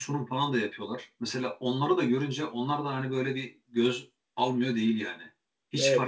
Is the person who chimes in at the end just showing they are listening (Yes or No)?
Yes